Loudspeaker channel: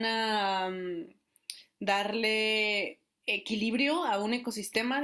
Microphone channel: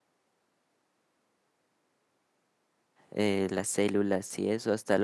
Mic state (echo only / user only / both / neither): user only